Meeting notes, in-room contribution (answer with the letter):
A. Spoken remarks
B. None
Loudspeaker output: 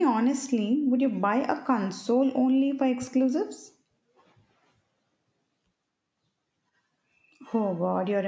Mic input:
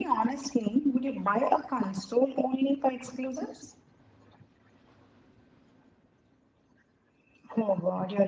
B